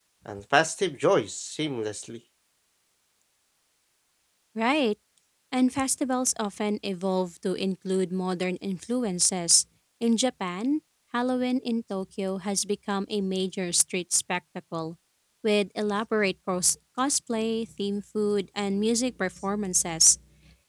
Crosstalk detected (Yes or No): No